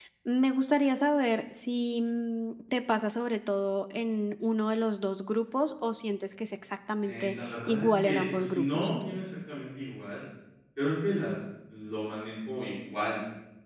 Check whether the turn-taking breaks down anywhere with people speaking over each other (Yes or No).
Yes